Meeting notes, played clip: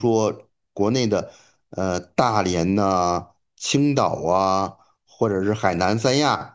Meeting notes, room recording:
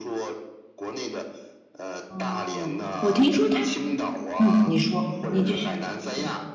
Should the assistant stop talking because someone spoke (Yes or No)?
Yes